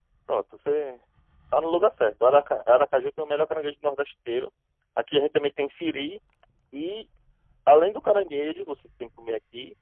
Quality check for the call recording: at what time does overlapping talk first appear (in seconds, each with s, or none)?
none